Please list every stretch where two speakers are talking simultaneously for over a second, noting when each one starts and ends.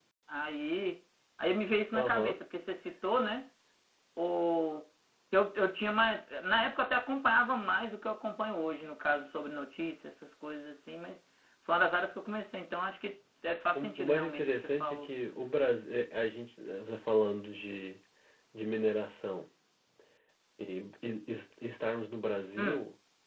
13.8-15.1

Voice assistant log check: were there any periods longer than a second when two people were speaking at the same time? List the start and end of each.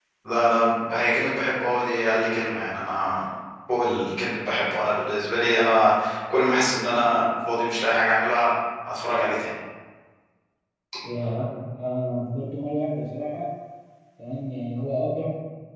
none

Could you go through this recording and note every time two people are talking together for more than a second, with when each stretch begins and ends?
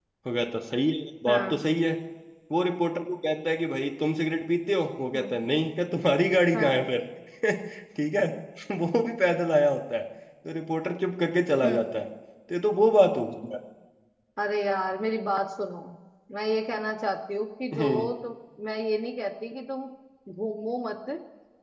none

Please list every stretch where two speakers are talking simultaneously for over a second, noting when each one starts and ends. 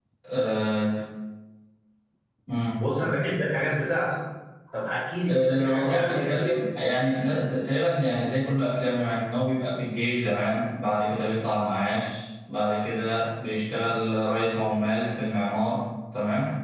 5.3-6.6

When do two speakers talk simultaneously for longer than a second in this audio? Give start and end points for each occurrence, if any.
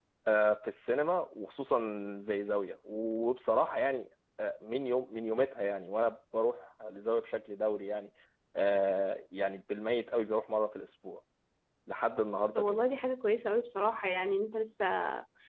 none

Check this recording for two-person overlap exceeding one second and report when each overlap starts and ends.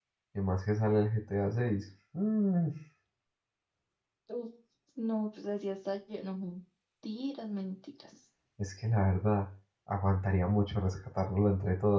none

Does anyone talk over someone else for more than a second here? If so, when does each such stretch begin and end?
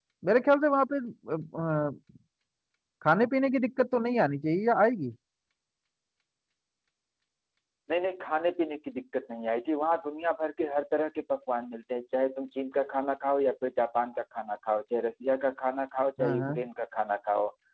none

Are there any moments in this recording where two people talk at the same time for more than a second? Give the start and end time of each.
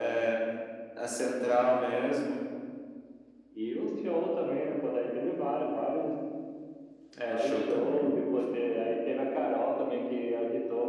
7.3-8.8

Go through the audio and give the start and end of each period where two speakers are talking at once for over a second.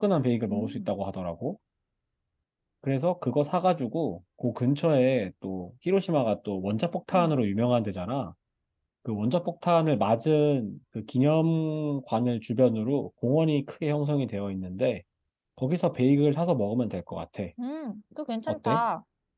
none

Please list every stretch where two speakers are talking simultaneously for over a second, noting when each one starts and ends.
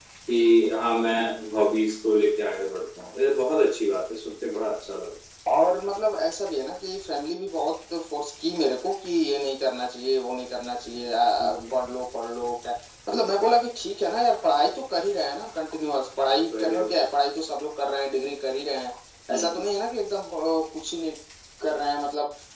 none

